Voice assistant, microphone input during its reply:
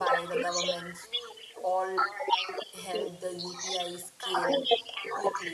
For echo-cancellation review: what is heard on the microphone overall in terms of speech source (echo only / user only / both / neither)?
both